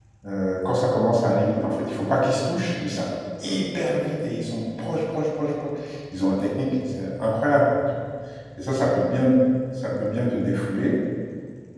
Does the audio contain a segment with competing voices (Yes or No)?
No